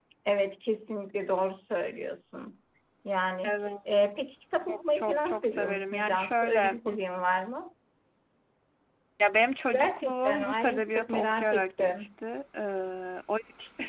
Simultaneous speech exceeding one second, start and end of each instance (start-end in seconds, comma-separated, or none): 4.7-6.8, 9.7-12.1